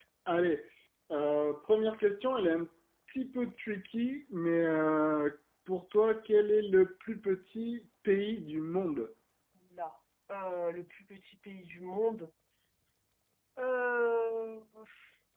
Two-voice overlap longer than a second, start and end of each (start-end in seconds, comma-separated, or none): none